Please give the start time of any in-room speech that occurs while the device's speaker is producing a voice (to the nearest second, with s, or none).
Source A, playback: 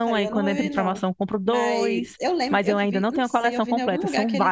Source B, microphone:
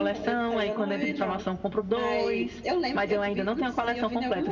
none